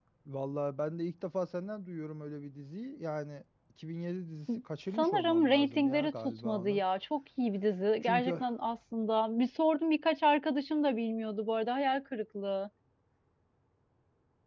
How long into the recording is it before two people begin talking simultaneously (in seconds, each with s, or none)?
4.9 s